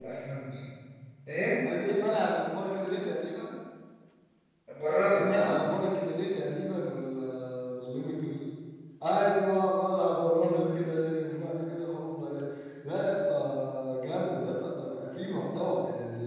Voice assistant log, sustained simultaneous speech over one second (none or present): none